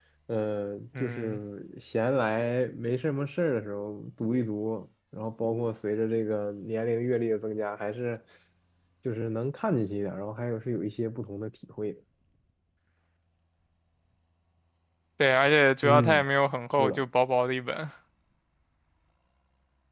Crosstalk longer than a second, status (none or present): none